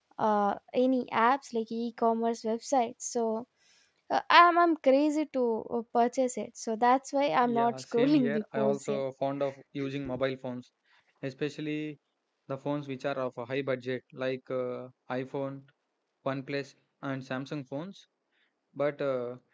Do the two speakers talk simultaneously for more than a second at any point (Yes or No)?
Yes